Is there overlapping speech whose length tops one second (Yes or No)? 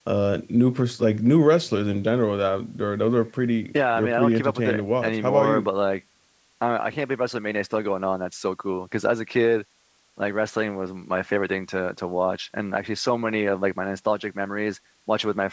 Yes